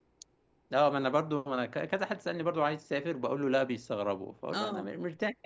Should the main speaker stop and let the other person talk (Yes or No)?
No